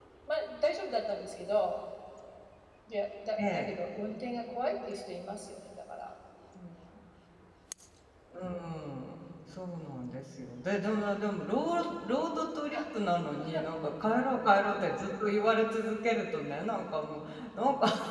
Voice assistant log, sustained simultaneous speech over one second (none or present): none